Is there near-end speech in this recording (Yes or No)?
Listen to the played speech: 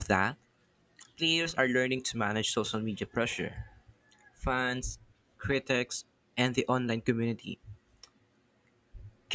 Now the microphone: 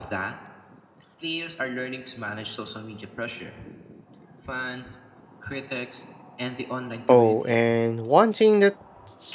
Yes